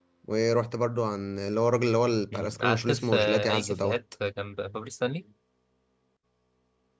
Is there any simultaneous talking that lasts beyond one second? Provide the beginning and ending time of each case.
2.3-4.0

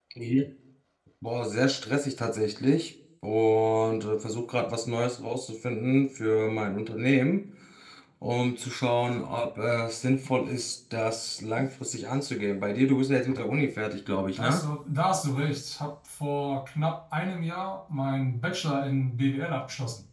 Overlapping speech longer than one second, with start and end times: none

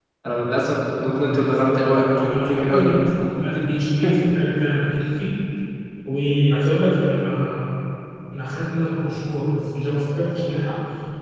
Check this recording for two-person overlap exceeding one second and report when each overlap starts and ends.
0.9-2.9

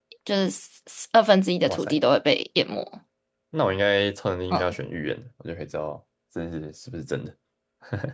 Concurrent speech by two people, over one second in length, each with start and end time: none

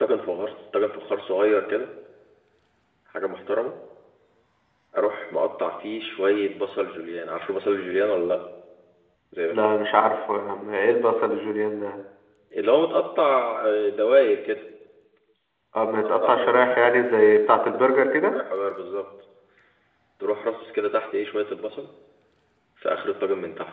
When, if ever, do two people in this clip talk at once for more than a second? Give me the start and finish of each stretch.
none

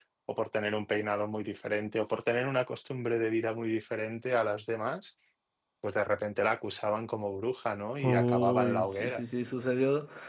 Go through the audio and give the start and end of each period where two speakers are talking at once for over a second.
8.0-9.2

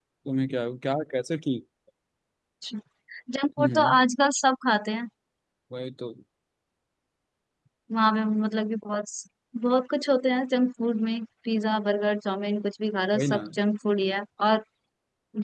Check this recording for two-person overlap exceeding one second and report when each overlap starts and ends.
none

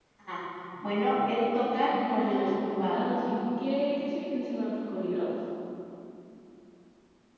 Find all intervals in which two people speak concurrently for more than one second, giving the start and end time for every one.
1.9-3.1

